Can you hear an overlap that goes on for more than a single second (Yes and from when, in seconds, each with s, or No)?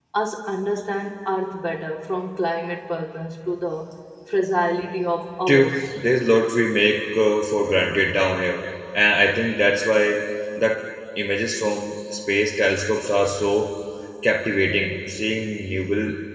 No